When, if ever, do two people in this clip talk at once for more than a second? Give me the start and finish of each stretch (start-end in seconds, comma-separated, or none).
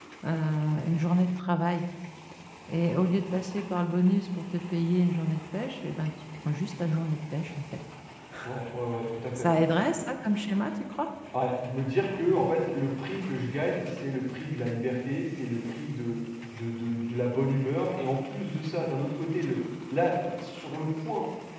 none